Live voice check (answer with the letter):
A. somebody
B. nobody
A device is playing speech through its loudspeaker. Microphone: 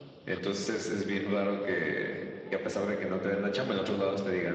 B